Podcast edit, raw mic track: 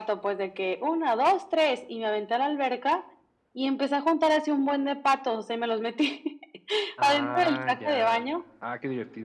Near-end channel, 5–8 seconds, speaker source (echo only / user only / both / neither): both